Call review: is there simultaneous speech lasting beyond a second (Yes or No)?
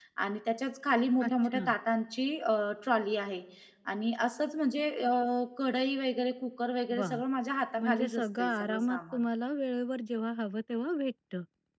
Yes